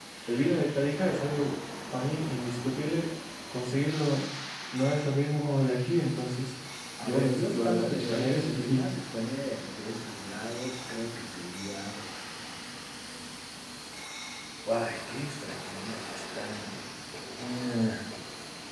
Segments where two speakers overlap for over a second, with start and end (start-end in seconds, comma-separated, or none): 7.0-8.9